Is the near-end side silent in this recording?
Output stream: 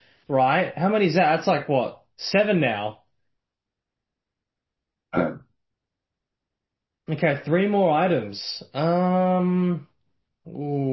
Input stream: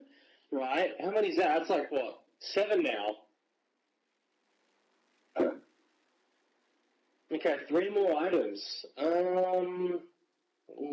Yes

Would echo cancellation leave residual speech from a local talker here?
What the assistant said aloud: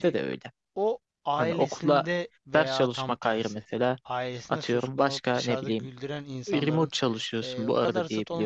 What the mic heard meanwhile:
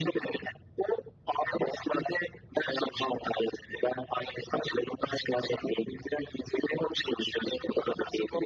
No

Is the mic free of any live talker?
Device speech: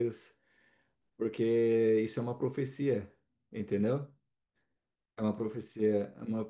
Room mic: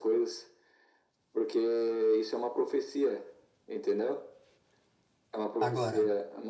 No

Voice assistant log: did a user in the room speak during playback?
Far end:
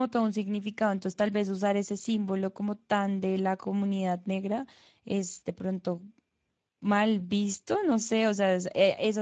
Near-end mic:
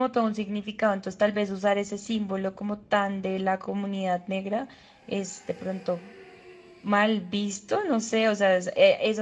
No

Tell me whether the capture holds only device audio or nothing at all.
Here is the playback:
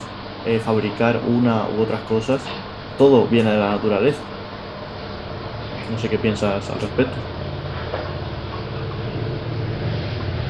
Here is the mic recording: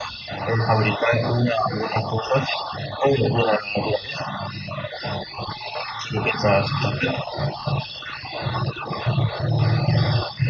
Yes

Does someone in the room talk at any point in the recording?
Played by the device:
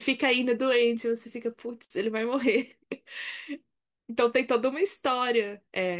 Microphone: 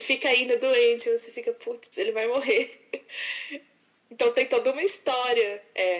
No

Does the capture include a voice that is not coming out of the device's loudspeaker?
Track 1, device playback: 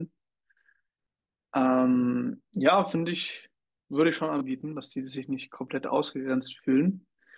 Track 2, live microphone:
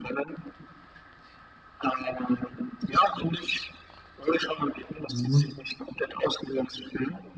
Yes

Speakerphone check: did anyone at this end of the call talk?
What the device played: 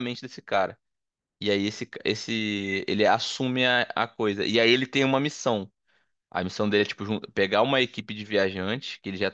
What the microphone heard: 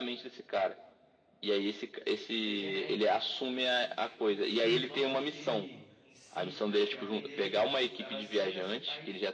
Yes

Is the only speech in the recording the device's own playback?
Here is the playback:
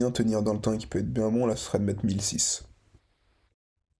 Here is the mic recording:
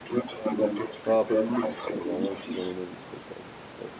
No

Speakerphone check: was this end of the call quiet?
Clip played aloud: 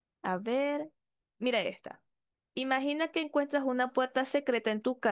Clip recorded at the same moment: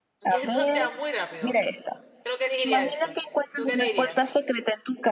No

